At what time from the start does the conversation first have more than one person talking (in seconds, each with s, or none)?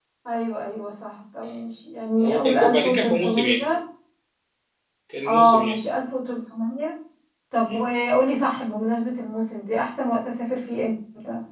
2.2 s